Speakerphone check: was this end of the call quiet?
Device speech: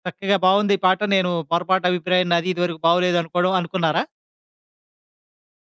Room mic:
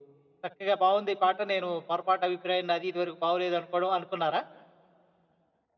Yes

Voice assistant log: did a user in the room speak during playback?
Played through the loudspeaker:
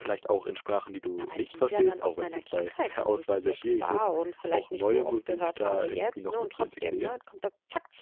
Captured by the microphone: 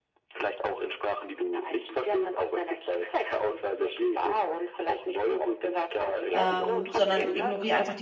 Yes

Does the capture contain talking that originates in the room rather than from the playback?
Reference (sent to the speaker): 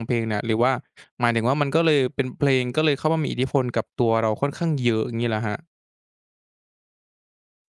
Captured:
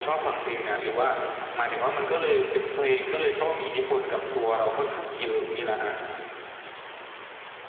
No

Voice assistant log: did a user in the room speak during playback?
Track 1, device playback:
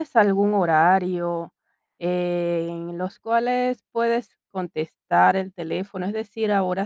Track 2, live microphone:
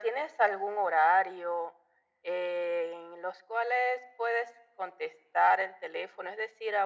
No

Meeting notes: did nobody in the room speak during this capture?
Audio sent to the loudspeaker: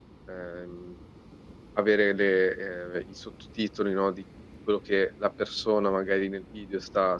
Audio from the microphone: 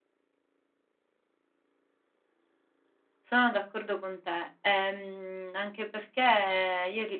No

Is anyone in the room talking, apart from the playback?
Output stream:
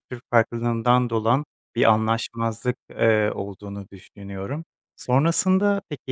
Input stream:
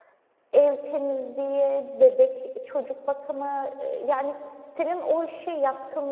Yes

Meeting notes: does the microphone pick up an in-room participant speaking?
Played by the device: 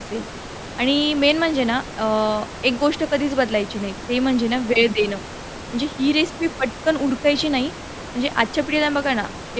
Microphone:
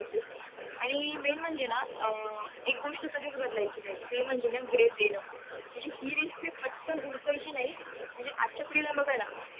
No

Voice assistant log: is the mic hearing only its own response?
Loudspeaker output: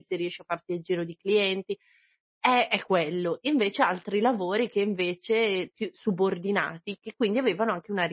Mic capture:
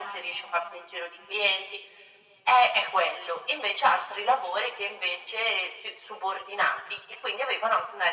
Yes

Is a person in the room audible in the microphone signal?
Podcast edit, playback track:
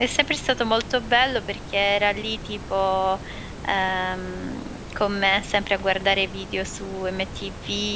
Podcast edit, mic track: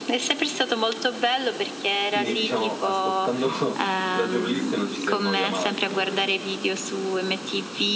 Yes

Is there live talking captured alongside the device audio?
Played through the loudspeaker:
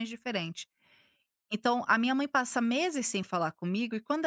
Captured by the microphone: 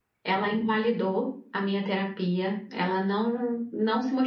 Yes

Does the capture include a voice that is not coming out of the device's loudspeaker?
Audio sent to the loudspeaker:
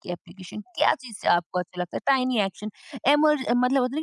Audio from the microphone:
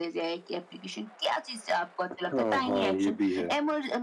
Yes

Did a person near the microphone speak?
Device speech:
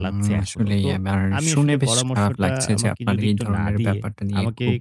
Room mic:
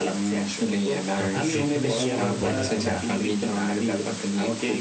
Yes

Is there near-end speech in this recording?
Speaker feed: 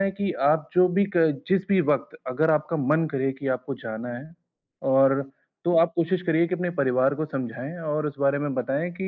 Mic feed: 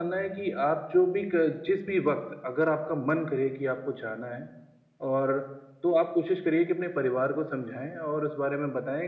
No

